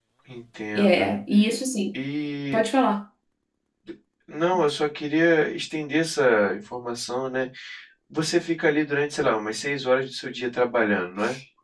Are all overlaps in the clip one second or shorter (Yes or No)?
Yes